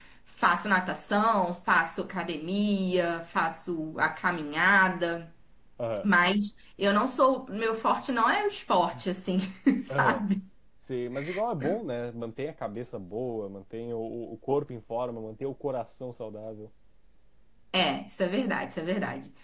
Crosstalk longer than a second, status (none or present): none